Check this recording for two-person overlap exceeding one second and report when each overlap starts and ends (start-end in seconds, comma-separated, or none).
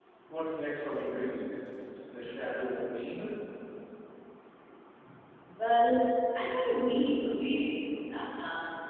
none